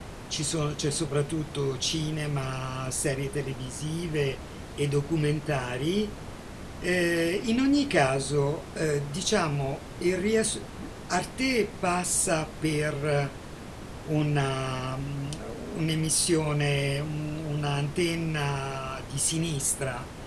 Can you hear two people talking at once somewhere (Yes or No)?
No